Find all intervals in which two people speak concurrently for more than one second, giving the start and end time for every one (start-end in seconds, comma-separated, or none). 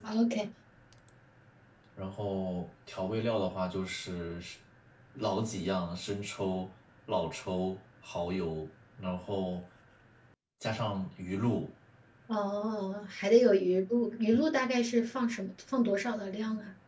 none